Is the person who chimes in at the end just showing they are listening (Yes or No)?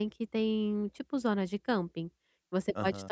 Yes